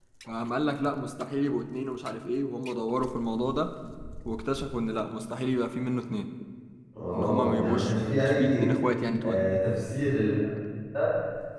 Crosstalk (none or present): present